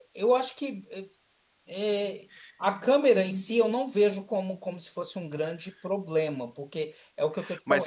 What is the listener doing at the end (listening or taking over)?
taking over